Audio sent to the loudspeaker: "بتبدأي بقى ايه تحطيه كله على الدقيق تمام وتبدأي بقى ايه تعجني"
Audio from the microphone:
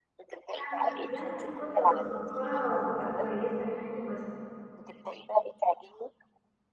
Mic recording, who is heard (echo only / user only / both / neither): both